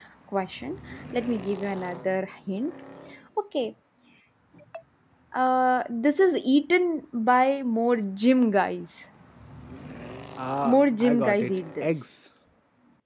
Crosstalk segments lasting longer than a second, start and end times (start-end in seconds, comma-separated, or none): 10.6-11.9